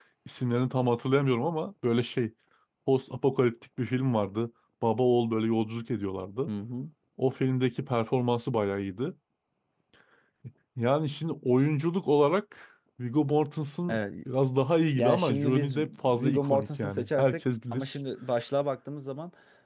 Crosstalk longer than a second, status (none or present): present